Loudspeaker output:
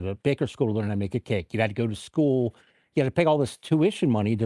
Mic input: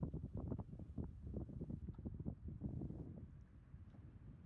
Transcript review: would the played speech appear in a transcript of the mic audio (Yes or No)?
No